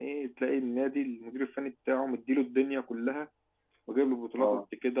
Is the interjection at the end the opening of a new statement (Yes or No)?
No